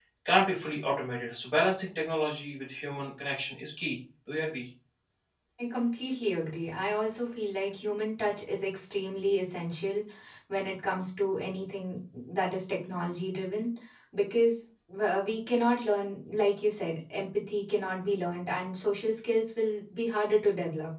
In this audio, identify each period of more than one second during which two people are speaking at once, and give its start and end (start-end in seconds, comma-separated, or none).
none